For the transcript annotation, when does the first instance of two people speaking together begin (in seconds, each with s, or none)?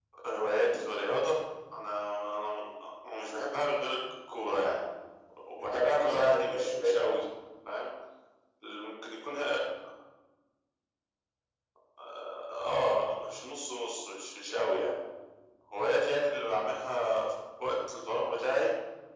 5.6 s